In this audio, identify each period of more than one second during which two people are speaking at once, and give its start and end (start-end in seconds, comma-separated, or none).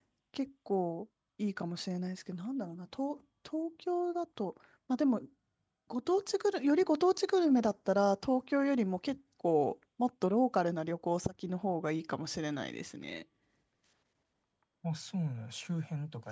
none